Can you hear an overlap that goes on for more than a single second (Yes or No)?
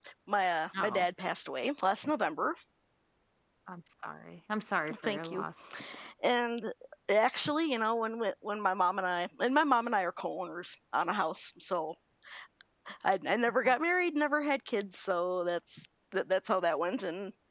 No